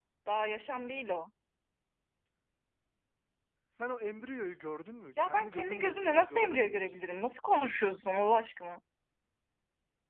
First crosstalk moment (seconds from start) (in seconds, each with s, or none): 5.2 s